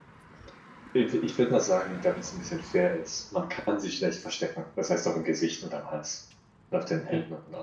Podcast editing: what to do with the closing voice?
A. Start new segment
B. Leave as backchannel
A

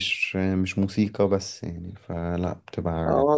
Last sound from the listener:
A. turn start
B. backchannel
A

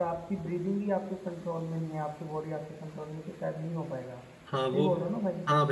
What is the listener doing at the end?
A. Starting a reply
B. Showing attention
A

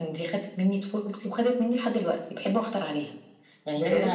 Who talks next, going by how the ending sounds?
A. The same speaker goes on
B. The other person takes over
A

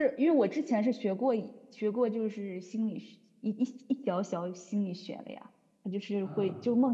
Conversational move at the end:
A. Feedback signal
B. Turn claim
A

